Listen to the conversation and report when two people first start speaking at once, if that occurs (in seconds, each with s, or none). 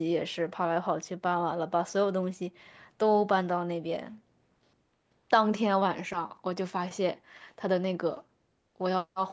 none